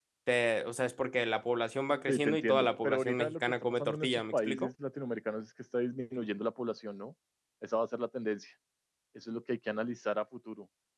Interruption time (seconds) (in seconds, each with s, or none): 2.1 s